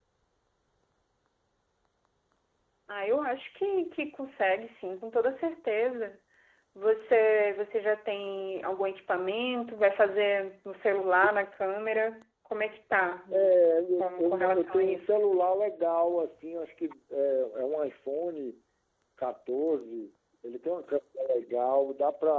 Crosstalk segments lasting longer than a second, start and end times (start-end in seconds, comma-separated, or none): 14.0-15.2